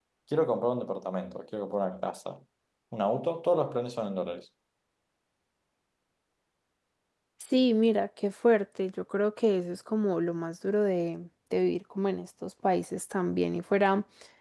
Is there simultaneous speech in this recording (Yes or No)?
No